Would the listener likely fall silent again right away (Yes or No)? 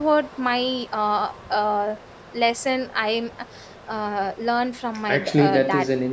No